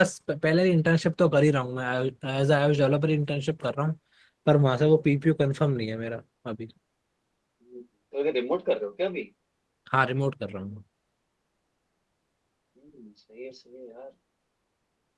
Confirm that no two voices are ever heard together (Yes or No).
Yes